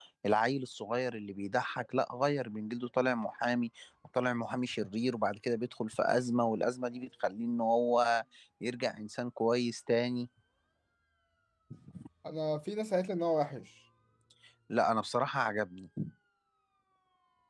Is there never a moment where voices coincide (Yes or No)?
Yes